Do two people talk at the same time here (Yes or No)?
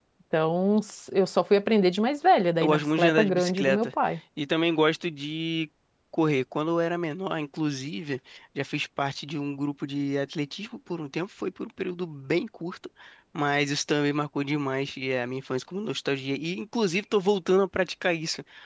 Yes